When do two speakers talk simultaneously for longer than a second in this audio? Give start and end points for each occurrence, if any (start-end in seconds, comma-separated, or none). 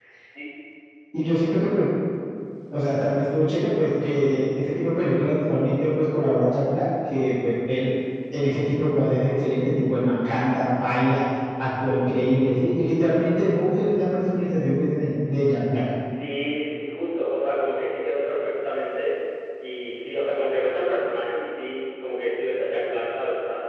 none